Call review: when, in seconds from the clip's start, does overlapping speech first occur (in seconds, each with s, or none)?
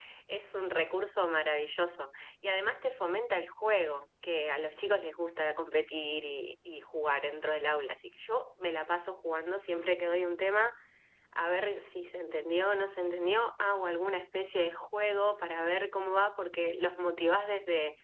none